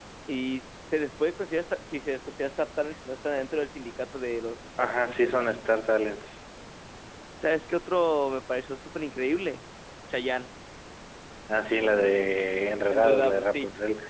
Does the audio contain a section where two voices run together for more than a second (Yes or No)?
Yes